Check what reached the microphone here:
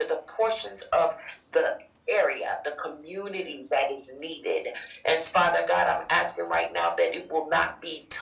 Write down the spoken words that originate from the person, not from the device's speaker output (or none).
none